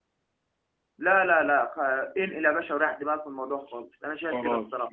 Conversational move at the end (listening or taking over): taking over